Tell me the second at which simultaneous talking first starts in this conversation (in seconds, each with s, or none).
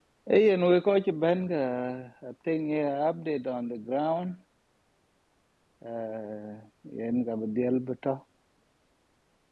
none